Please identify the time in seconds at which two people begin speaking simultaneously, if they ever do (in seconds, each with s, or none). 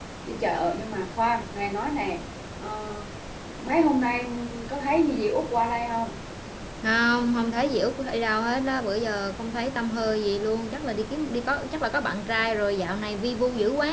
none